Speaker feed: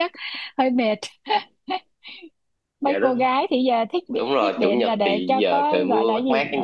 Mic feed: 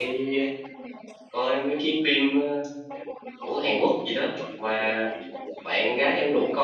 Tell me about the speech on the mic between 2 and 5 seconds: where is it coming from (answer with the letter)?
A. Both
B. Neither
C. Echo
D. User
A